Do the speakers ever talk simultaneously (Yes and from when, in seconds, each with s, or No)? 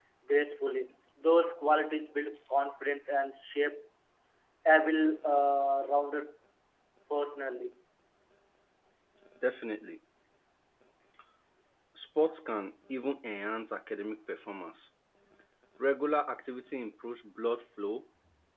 No